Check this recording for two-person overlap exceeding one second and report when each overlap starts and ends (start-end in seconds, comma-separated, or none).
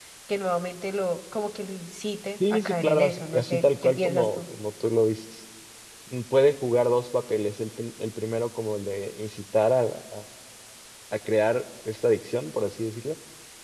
2.4-4.4